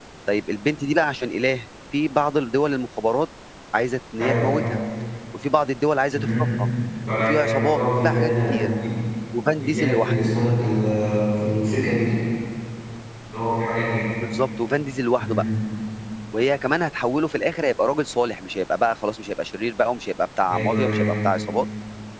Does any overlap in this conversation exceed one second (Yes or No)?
Yes